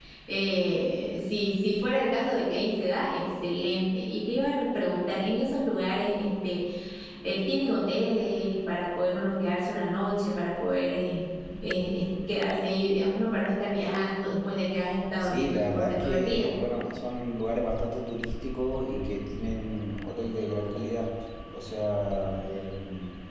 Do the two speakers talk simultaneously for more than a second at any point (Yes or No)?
Yes